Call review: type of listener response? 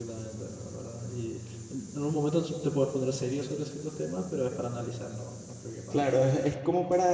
taking over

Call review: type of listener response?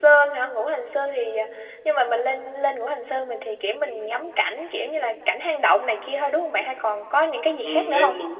taking over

